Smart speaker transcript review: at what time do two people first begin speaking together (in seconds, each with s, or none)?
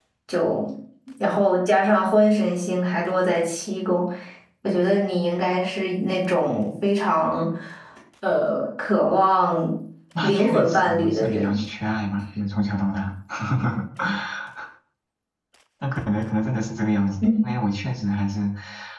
10.2 s